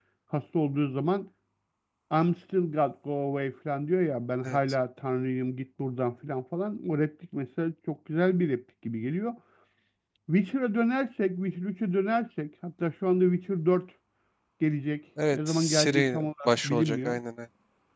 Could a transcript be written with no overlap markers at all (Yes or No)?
No